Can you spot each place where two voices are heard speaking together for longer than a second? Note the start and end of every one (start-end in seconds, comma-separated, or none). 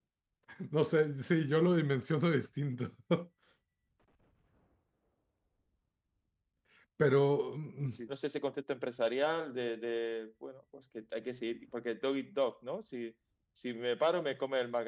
none